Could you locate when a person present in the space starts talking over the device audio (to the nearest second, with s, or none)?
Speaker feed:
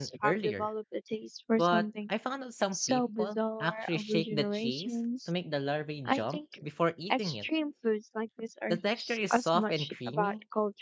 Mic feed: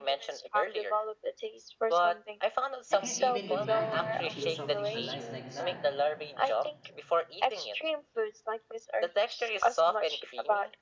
3 s